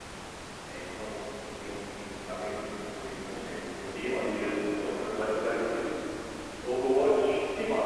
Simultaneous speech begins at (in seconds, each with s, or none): 4.0 s